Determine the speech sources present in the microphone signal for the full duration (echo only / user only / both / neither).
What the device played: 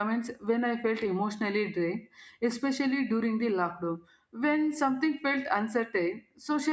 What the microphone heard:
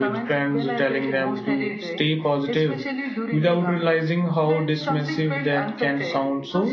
both